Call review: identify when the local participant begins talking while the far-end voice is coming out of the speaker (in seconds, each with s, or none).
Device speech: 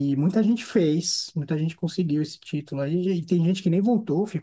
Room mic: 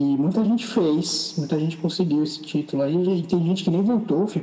none